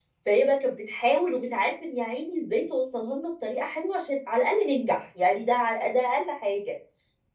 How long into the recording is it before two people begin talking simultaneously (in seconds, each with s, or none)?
none